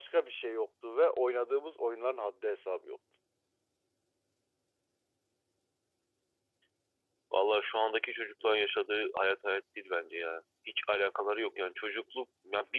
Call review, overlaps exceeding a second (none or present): none